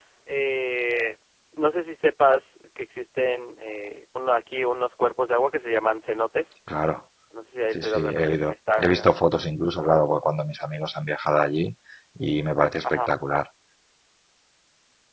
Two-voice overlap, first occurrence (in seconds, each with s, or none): 7.7 s